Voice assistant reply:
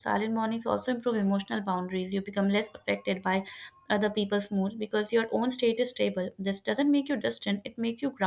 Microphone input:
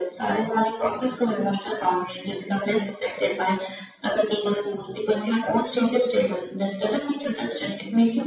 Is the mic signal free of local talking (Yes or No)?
Yes